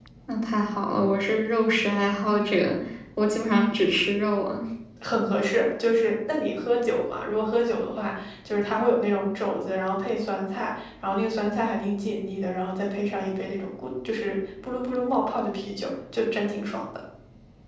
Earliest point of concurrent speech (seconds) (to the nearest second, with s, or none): none